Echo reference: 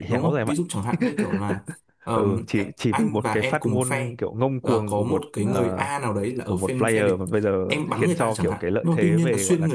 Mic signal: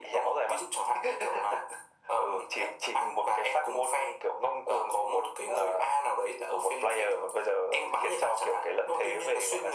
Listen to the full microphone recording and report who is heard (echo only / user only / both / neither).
echo only